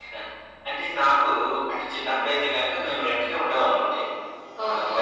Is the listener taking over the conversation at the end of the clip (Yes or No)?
No